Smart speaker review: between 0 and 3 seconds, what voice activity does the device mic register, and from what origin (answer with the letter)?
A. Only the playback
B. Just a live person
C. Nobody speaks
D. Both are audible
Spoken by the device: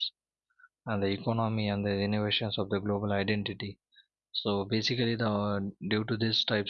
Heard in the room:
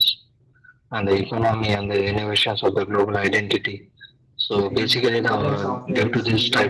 A